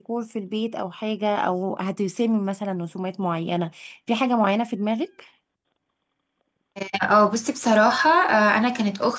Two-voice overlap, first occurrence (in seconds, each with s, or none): none